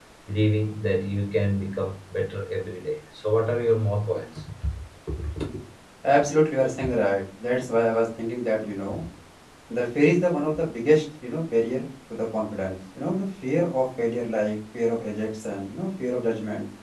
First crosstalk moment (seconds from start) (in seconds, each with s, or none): none